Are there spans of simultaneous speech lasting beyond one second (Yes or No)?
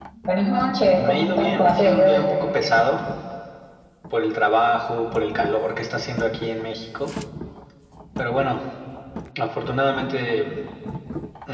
Yes